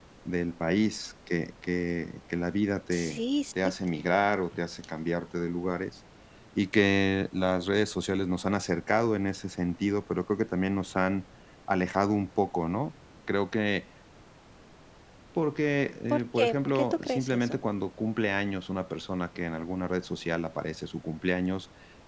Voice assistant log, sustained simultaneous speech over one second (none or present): present